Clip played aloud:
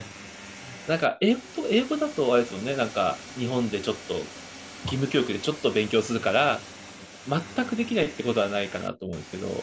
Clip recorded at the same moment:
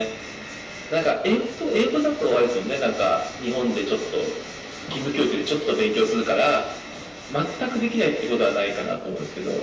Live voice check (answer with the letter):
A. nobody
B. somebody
A